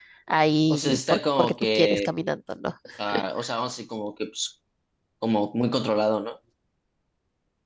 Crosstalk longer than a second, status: present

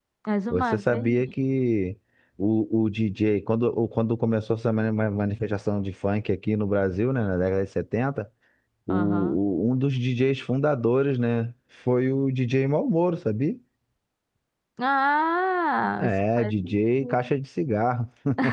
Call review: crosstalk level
present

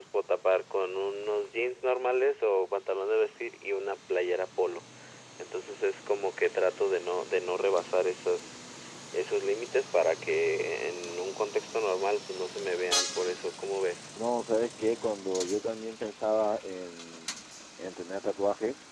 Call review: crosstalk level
none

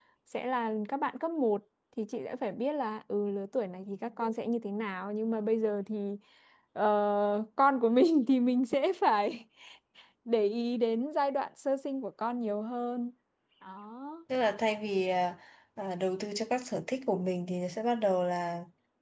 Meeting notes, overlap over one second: none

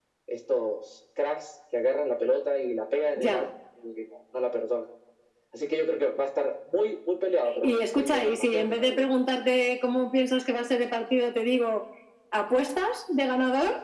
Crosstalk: present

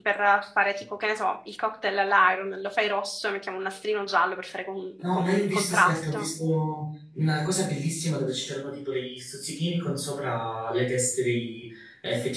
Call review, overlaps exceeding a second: present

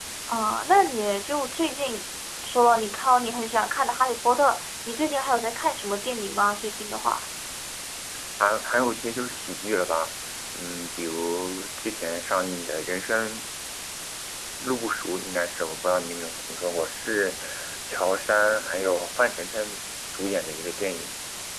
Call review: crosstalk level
none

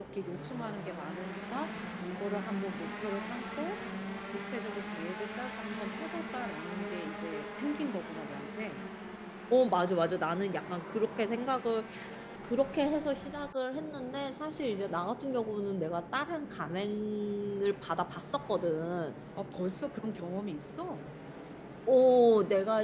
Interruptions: none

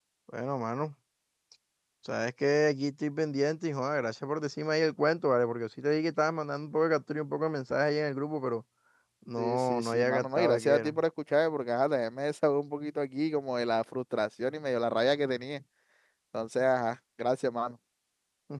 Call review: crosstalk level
present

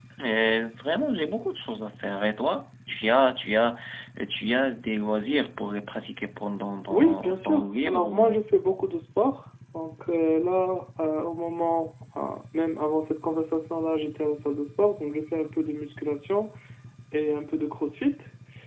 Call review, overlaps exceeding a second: present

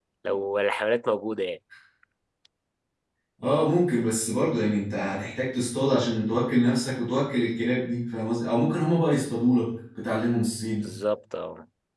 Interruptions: none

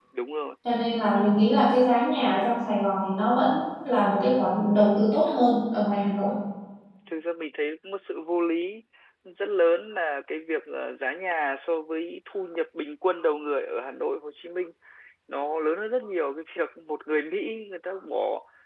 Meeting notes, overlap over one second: none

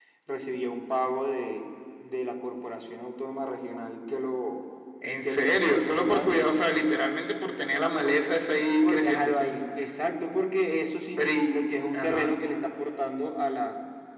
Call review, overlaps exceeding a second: present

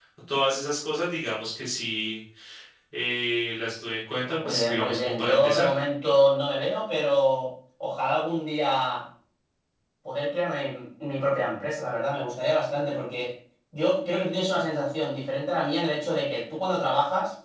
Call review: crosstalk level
present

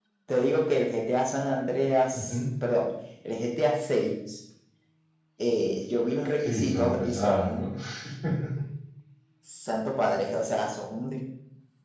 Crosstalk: present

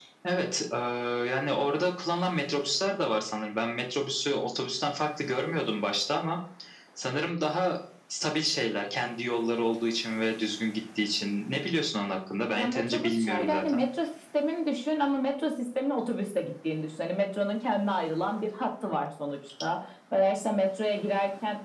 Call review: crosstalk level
present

